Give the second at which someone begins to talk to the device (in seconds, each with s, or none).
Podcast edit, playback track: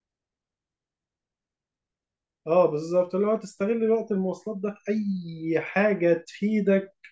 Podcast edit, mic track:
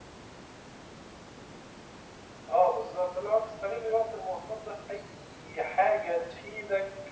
none